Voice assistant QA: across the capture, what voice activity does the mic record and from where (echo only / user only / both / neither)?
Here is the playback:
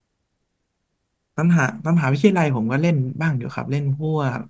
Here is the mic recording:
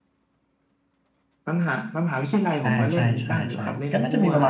both